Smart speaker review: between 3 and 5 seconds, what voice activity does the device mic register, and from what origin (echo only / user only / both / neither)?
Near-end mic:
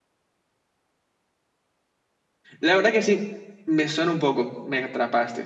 user only